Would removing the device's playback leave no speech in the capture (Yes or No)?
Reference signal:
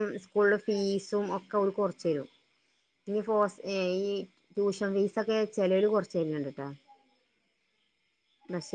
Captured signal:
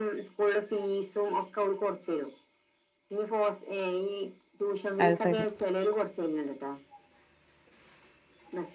No